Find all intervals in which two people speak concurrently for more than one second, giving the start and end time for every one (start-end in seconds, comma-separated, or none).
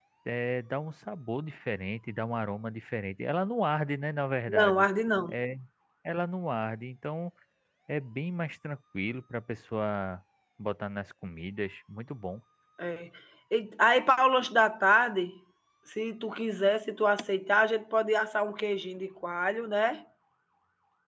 none